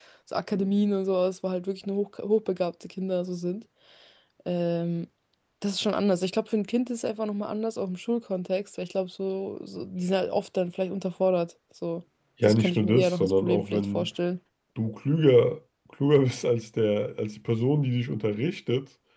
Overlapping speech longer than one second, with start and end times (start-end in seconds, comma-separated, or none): 12.4-14.1